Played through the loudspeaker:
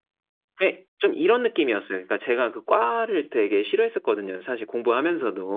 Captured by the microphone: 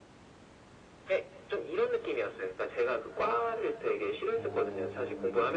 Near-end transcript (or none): 어.